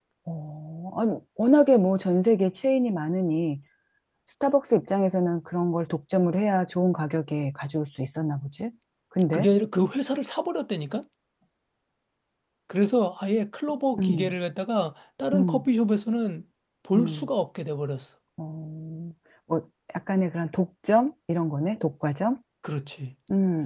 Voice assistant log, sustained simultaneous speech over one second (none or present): none